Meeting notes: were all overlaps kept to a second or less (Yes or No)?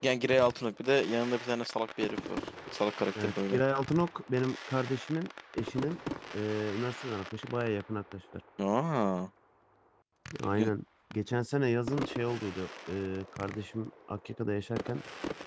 Yes